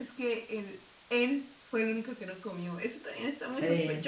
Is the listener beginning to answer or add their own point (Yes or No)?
Yes